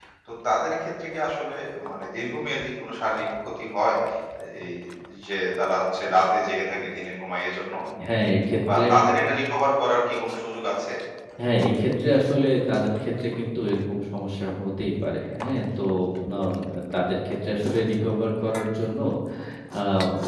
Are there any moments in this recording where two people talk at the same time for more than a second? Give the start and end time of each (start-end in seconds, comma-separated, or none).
none